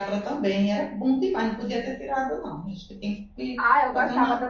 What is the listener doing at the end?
taking over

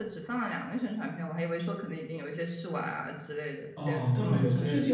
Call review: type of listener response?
taking over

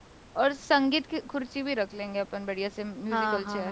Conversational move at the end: taking over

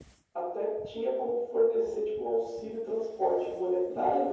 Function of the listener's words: taking over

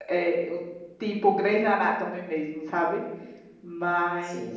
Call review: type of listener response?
listening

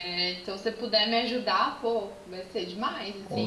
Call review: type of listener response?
taking over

